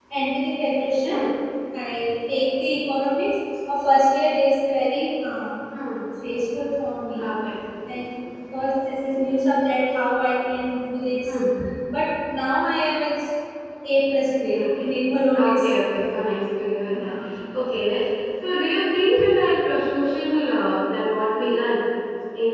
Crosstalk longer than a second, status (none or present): none